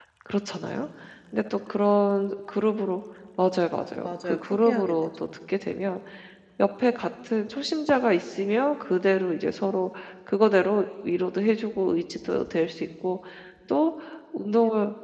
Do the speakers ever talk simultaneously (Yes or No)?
Yes